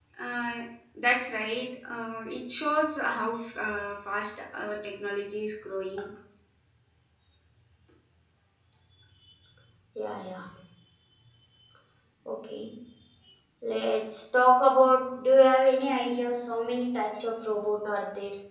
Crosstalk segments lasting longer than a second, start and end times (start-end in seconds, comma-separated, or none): none